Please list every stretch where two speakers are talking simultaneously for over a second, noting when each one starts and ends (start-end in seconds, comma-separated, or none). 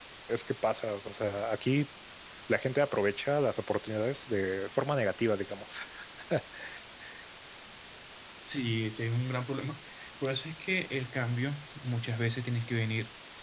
none